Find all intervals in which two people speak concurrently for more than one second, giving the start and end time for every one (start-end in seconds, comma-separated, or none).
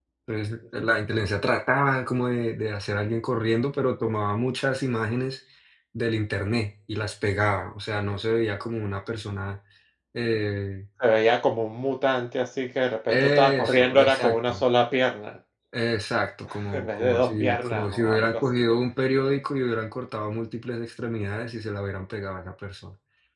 13.1-14.6, 16.7-18.6